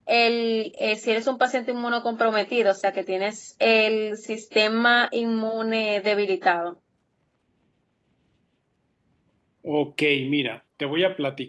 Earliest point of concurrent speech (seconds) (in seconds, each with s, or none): none